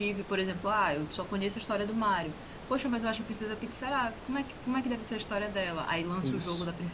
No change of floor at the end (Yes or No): Yes